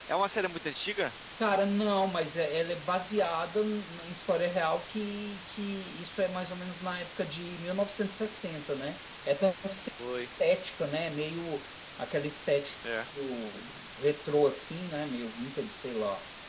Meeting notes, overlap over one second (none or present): none